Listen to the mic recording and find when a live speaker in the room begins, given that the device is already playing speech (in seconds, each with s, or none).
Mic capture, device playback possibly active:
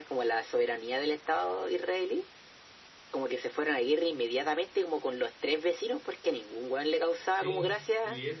7.3 s